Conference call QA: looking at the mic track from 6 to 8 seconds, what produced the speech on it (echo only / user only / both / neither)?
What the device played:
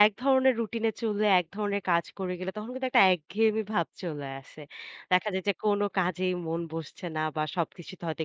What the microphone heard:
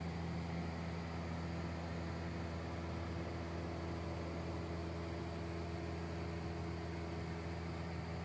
neither